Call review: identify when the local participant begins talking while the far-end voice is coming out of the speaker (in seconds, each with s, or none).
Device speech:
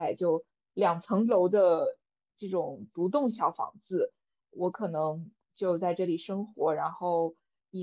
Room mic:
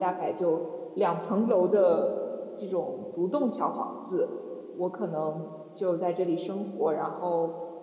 none